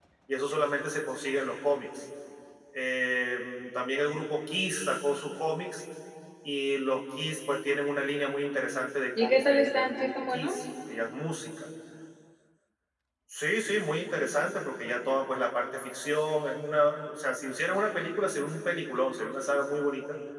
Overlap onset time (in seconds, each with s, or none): 9.2 s